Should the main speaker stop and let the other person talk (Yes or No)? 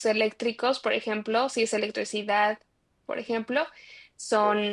No